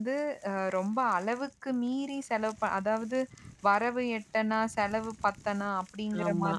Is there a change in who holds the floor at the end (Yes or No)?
No